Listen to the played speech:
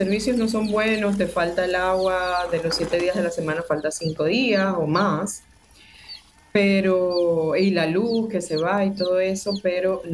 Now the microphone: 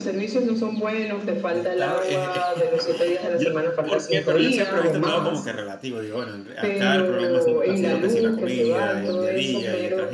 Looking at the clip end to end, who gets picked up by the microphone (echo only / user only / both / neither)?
both